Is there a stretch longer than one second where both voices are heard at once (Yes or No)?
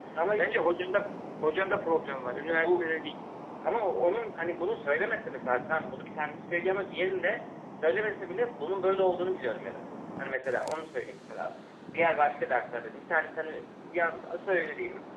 No